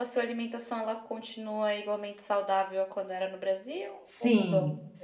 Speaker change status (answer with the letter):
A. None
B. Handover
B